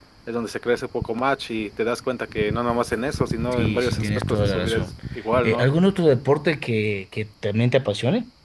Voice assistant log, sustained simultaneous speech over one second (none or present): present